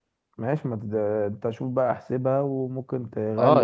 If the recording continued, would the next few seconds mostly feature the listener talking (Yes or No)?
Yes